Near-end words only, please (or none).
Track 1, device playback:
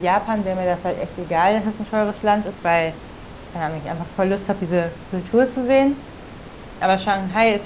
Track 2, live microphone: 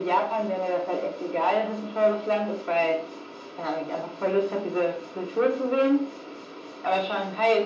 none